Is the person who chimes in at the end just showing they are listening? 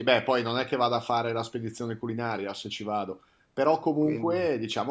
Yes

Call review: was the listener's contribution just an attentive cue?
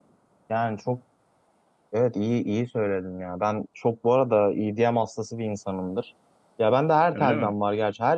Yes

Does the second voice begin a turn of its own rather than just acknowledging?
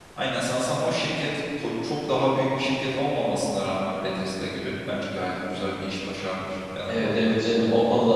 Yes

